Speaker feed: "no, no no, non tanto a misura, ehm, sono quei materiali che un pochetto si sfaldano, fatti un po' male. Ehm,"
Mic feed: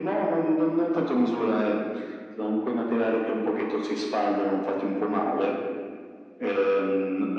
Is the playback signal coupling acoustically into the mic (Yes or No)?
Yes